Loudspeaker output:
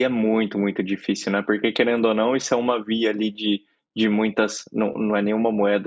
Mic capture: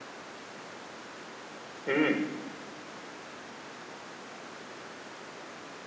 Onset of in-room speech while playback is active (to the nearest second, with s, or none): 2 s